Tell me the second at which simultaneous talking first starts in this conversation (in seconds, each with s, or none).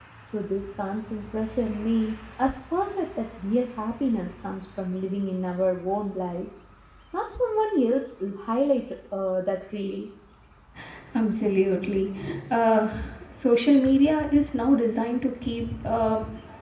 none